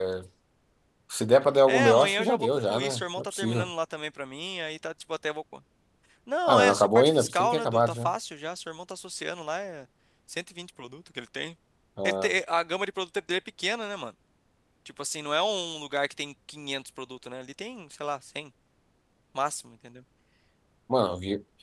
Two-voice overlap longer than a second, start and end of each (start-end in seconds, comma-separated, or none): 1.7-3.7, 6.5-8.1